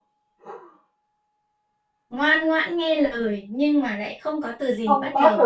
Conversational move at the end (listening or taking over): taking over